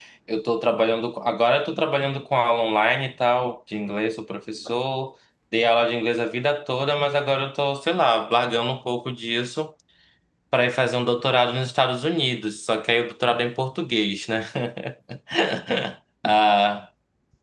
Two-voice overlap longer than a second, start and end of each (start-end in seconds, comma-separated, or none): none